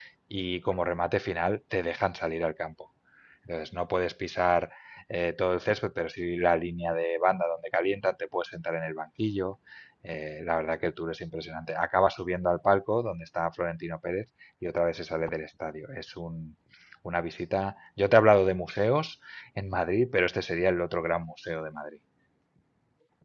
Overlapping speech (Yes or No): No